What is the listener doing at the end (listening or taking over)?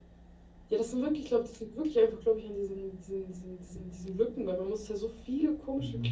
listening